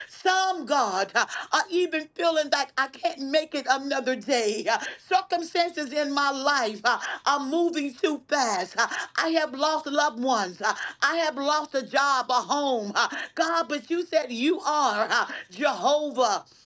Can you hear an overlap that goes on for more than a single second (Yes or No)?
No